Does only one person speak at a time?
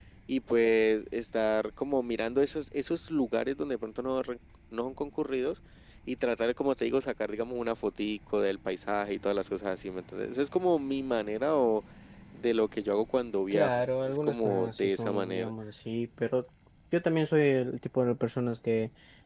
No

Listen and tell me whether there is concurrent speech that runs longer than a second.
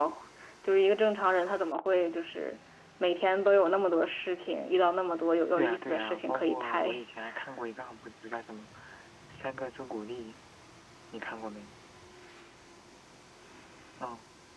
Yes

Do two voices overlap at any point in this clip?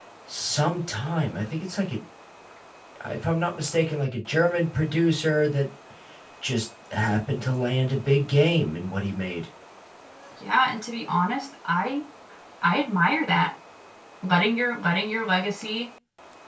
No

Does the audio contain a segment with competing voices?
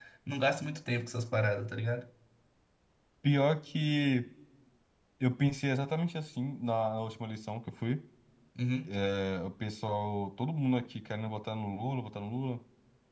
No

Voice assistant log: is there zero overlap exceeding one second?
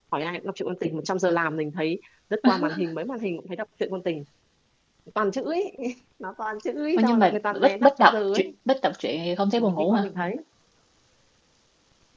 No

